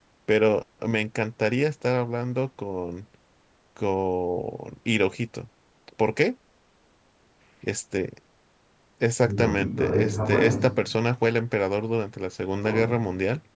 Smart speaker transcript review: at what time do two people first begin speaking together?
9.2 s

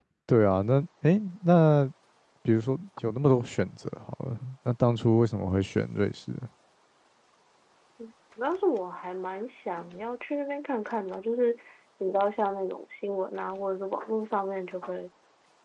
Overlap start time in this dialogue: none

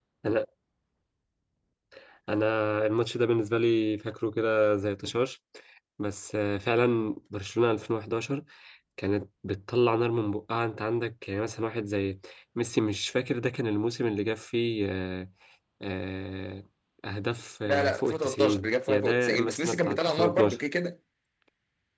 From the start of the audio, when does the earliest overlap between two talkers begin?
17.7 s

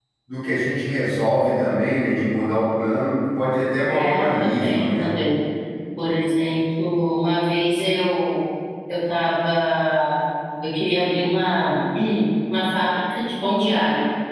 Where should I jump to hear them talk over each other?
3.9 s

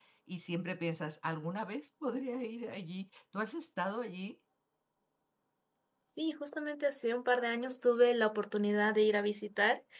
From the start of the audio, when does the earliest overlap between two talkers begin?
none

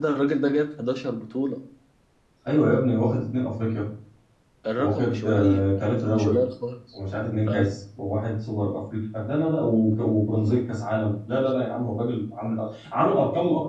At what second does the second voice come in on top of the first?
4.8 s

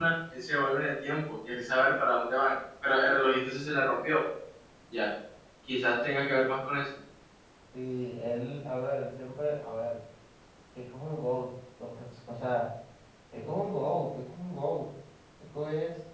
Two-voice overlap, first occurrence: none

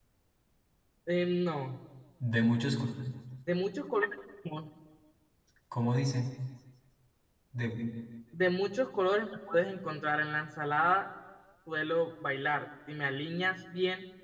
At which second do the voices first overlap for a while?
none

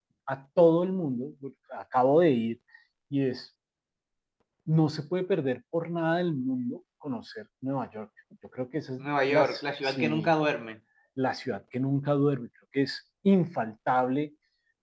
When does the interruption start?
9.0 s

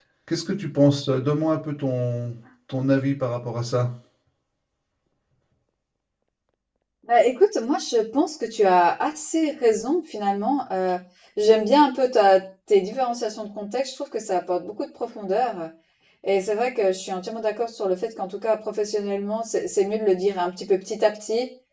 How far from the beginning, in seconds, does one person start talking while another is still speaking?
none

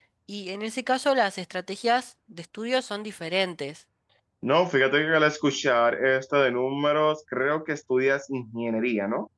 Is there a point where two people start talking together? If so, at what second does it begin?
none

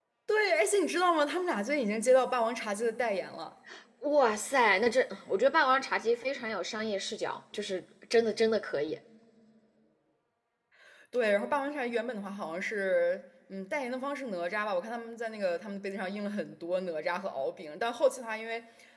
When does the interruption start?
none

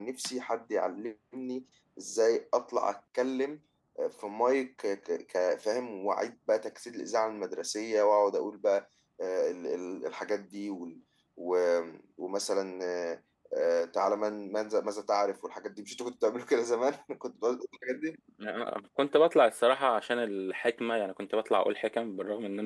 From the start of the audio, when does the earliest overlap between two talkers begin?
none

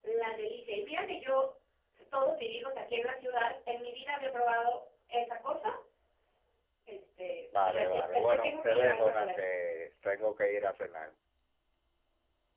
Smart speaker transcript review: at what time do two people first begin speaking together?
7.6 s

